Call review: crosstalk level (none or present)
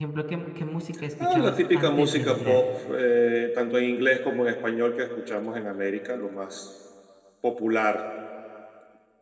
present